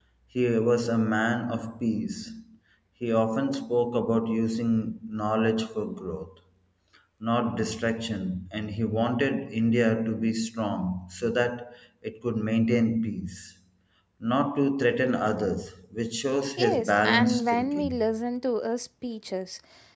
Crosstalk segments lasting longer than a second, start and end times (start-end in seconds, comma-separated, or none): 16.6-18.0